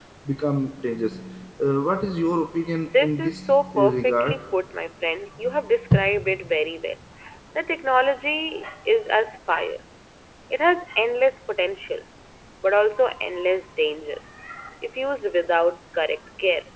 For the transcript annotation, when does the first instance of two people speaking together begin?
2.8 s

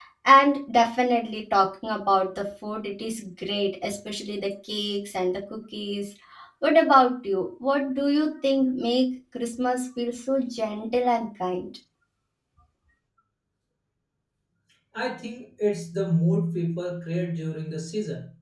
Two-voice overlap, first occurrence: none

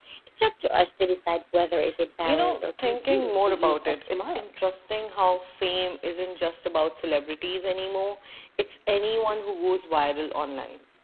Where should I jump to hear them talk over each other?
2.2 s

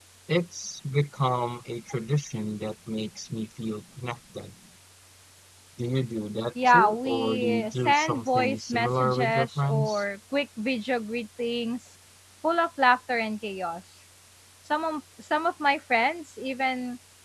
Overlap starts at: 6.7 s

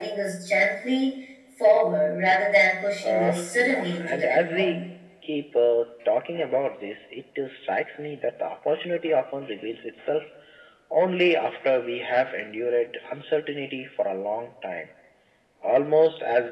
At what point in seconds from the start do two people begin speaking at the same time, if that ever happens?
3.0 s

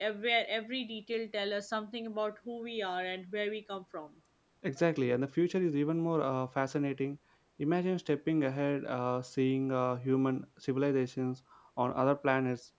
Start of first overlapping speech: none

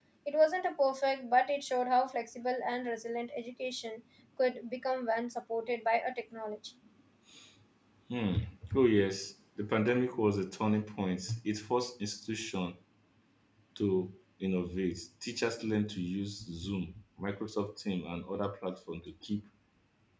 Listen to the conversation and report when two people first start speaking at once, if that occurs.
none

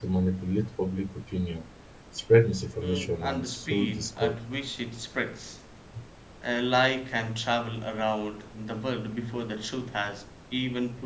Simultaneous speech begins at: 2.8 s

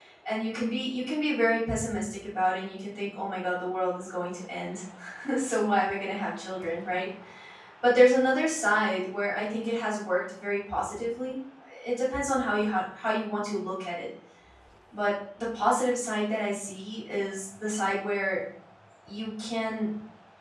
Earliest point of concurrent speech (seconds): none

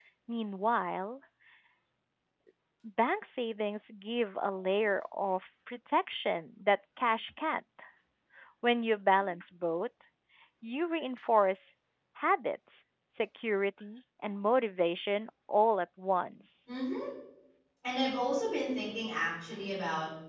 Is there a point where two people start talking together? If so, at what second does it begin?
none

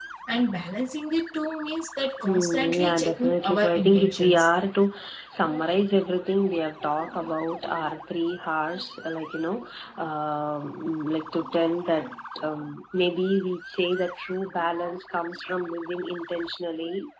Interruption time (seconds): 2.2 s

